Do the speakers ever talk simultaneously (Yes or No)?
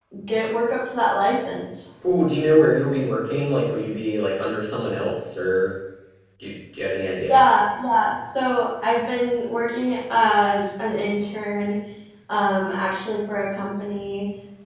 No